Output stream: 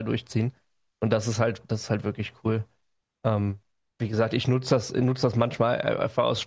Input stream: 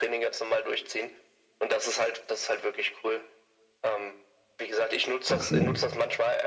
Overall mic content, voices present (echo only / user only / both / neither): both